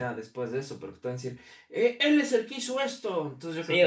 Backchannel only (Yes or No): No